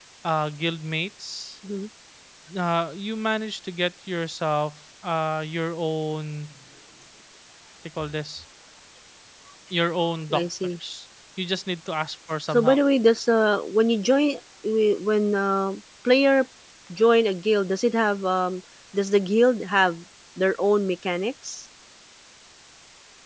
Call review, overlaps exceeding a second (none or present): none